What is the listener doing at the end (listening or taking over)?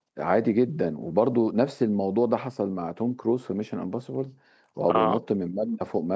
listening